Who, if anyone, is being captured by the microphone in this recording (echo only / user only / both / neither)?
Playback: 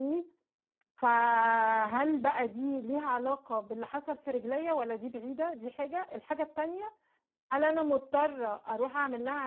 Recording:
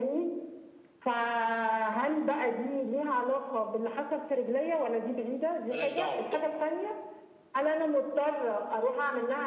both